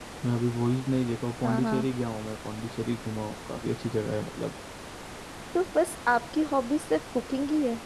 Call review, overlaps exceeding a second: none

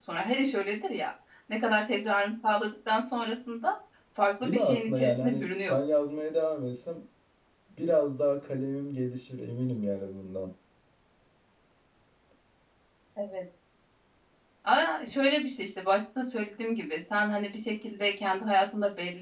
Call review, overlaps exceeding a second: present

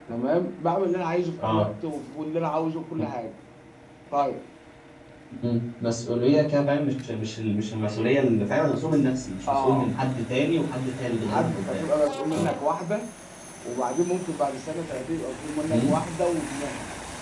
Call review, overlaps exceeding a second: none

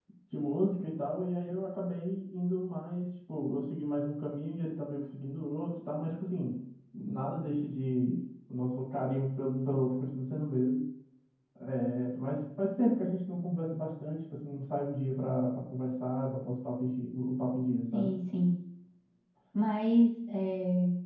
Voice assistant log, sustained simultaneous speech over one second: none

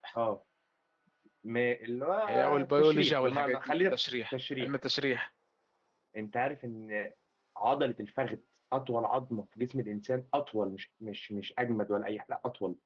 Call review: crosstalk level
present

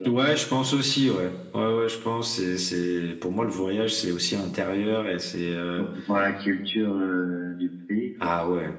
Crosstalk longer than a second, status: none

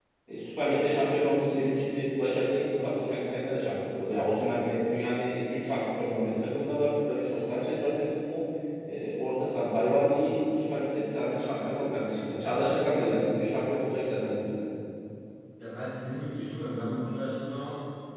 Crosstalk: none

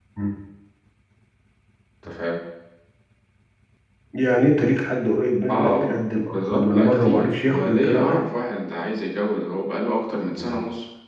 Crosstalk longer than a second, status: present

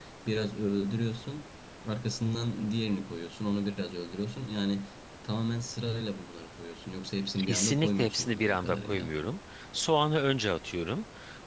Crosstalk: present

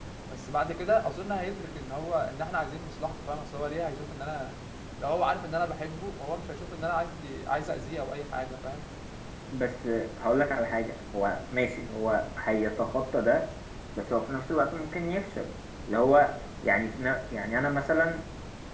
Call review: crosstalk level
none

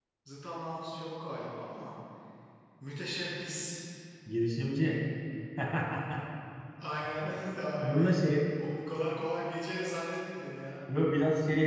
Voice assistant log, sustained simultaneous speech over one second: none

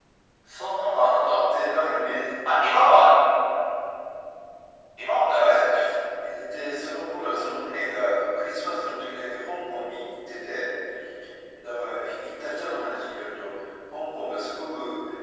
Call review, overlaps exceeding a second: none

